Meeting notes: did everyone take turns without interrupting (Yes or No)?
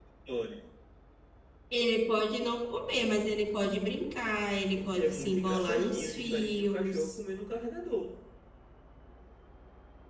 No